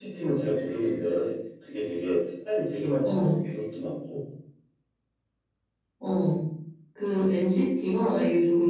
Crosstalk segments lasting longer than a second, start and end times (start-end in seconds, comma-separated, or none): none